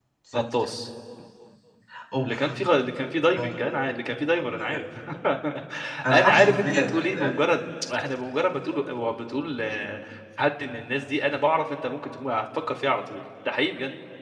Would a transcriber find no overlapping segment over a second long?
No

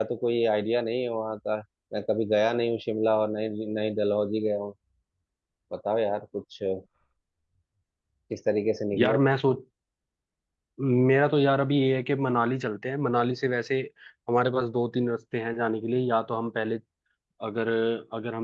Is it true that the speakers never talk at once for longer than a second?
Yes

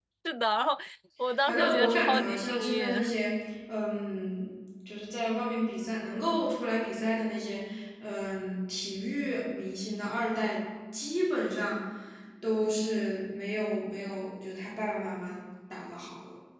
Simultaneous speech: Yes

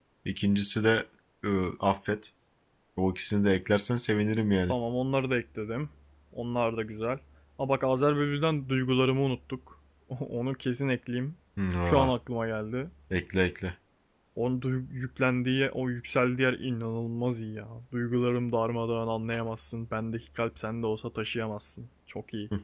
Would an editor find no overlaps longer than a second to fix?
Yes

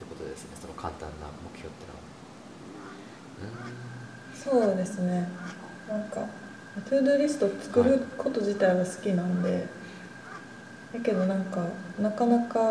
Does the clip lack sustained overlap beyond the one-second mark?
Yes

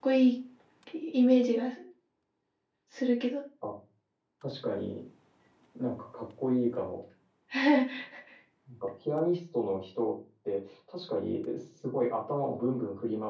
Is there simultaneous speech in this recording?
No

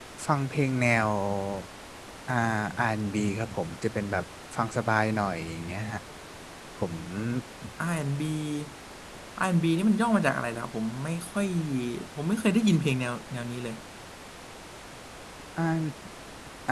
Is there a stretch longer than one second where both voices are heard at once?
No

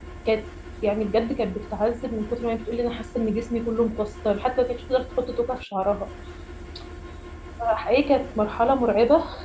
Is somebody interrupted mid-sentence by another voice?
No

